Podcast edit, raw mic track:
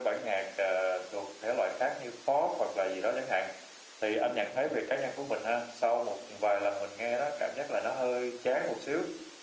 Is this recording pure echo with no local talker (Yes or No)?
No